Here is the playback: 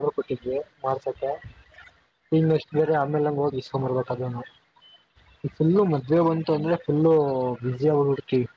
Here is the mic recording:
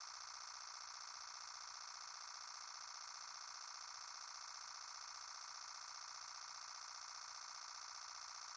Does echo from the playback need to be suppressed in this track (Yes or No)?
No